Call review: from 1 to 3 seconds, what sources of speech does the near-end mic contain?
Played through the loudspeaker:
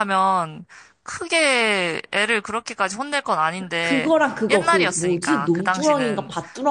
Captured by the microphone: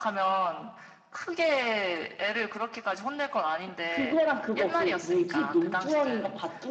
echo only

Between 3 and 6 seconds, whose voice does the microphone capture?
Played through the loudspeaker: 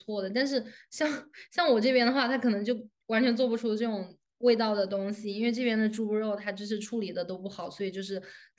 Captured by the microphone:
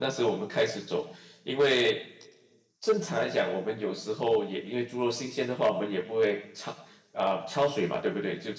user only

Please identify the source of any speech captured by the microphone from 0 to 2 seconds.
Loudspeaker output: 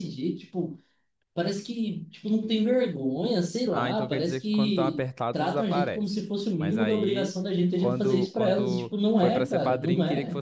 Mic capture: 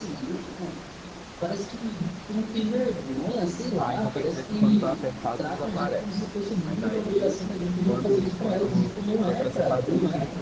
echo only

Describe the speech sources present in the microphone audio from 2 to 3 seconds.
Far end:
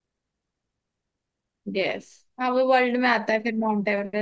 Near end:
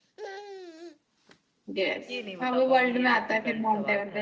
both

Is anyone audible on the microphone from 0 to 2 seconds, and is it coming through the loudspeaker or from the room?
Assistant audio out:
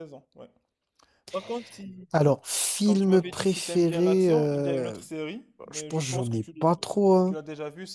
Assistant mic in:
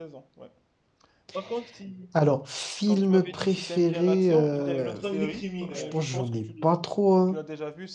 echo only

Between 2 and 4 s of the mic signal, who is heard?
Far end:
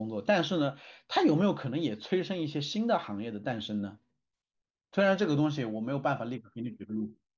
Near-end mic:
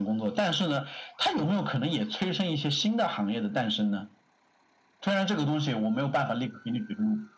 echo only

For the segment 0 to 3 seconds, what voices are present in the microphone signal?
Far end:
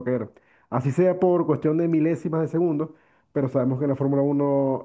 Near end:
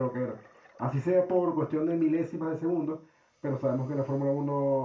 echo only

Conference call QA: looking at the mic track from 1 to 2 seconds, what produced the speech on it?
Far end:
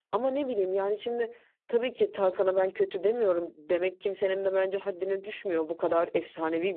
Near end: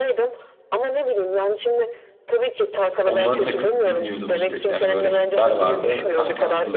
echo only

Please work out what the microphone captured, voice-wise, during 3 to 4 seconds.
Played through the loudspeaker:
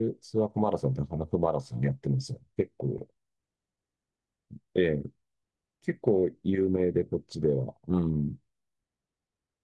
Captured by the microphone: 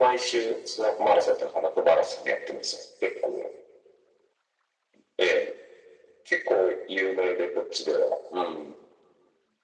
echo only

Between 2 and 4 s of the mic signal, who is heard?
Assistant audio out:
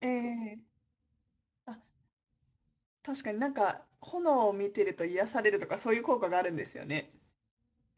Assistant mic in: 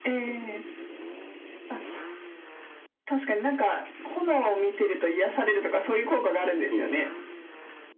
echo only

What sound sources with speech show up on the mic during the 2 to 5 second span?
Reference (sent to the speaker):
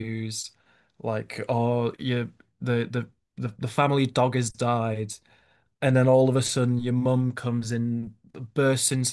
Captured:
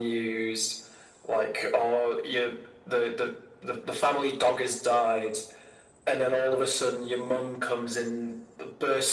echo only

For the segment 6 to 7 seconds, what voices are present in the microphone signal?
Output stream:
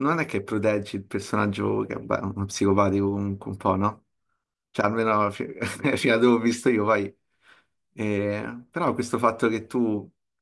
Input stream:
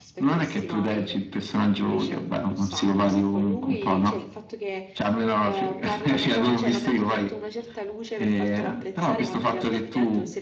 both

